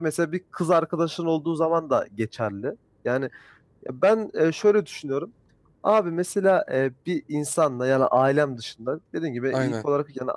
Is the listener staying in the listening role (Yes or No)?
Yes